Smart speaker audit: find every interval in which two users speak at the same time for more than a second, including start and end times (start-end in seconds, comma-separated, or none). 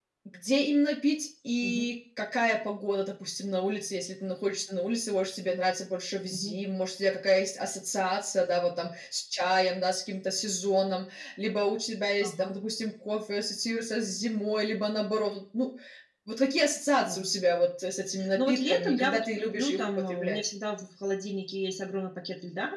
18.4-20.5